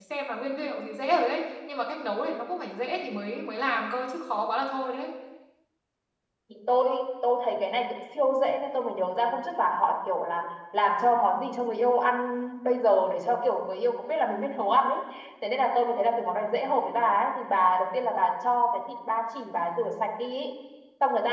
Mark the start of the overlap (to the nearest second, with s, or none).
none